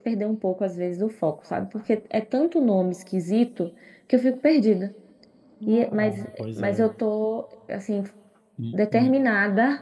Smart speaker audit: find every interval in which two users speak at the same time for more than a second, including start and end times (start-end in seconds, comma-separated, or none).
5.7-6.9